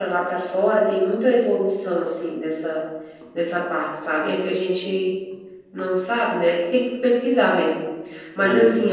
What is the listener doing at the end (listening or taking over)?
listening